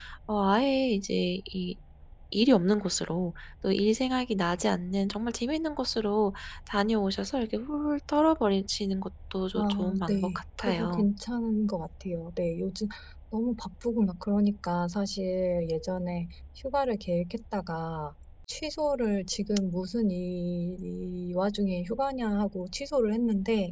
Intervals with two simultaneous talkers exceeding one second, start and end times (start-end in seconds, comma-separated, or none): 9.6-11.1